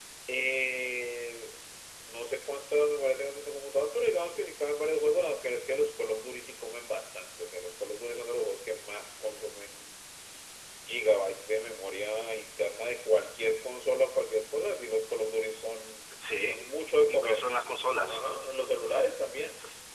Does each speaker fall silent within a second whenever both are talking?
Yes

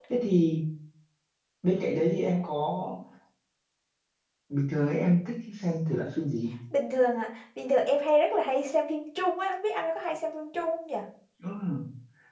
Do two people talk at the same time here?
No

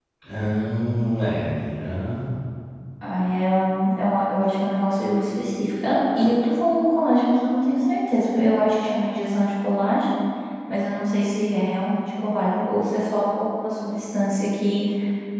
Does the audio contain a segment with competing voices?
No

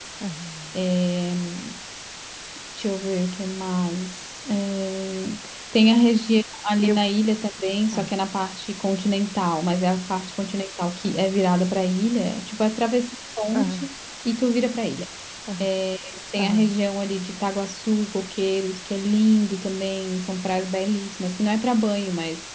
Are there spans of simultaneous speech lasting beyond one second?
No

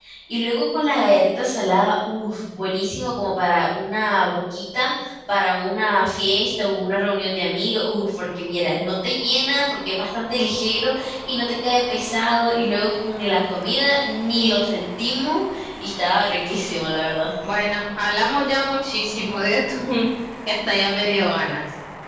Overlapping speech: No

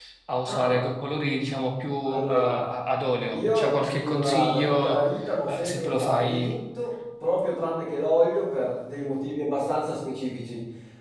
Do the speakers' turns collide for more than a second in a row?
Yes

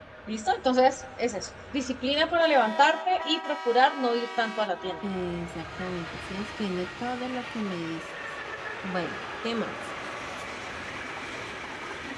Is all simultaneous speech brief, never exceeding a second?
Yes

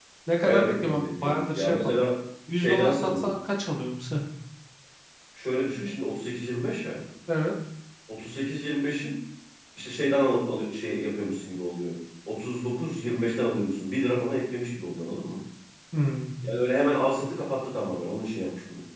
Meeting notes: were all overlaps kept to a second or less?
No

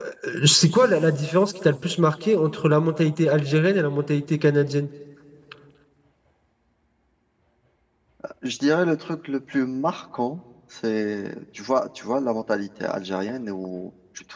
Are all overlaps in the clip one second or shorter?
Yes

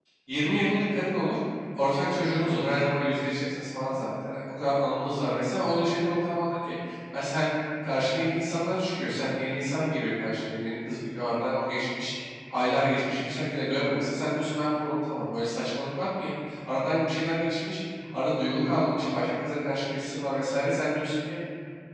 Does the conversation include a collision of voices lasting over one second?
No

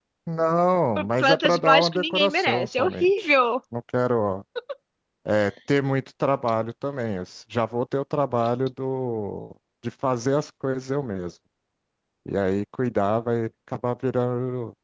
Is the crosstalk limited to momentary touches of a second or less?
No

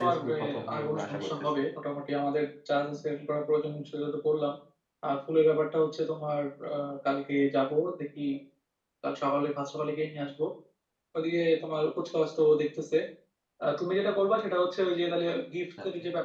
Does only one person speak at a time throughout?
No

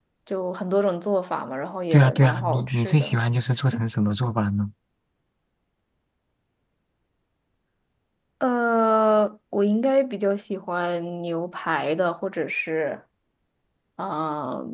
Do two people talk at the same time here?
Yes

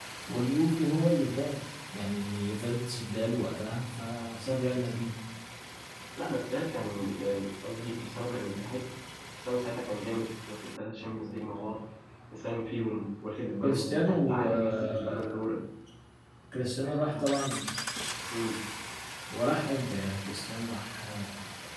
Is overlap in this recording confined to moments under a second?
No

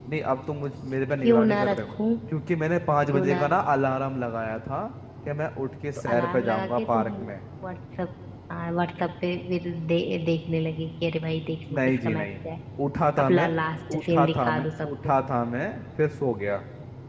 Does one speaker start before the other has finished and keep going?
Yes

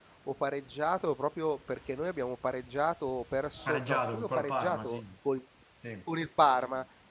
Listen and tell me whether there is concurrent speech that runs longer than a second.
Yes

